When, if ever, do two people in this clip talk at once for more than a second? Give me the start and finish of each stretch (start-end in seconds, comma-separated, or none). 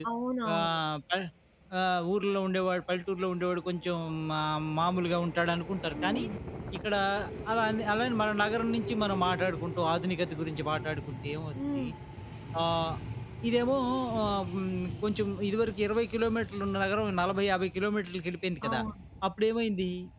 none